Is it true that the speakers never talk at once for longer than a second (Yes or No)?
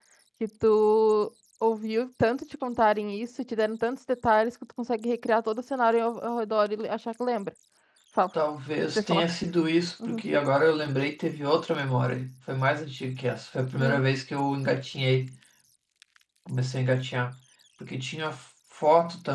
Yes